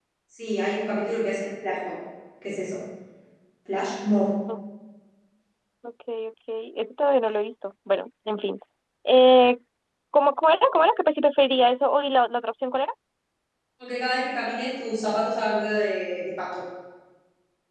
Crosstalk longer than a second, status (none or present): none